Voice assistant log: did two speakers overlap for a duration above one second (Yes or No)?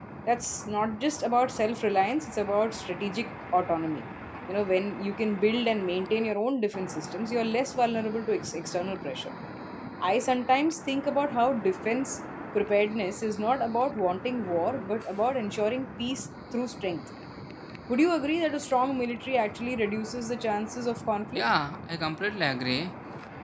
No